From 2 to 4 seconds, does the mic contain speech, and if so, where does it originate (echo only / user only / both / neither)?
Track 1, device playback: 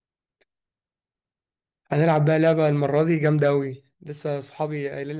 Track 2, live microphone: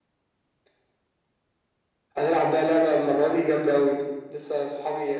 echo only